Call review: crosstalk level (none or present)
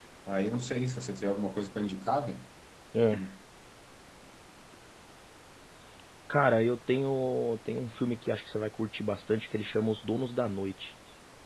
none